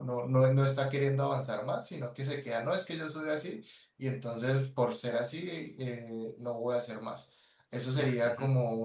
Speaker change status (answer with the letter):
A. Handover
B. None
B